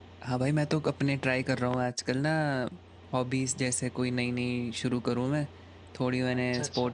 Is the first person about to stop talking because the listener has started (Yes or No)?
No